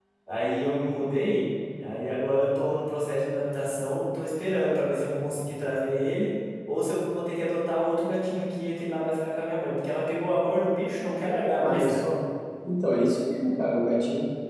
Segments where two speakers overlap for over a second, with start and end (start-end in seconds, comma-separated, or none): none